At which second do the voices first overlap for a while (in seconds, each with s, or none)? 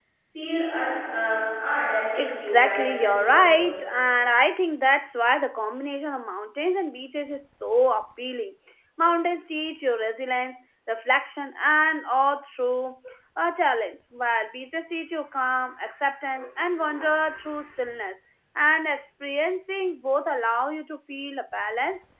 2.2 s